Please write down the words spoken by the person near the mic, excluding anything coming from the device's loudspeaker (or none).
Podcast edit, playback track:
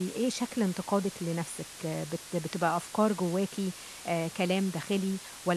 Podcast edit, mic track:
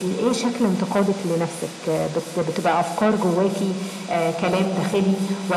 none